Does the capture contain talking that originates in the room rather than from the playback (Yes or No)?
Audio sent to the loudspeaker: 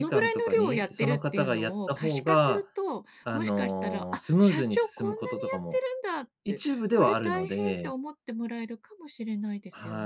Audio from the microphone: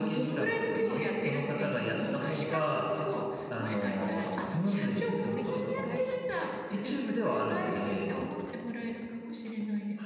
Yes